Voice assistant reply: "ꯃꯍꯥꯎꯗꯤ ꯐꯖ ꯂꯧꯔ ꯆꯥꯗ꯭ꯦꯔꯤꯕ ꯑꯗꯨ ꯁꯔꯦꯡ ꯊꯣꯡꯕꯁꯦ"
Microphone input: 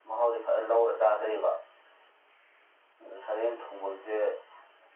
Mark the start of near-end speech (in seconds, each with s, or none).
none